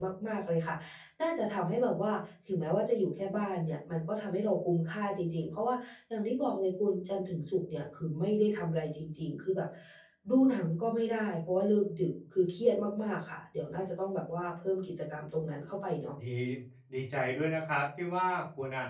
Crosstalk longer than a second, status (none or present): none